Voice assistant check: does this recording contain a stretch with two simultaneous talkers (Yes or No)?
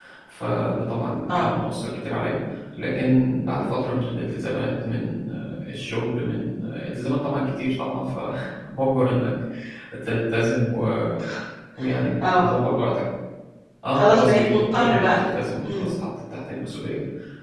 Yes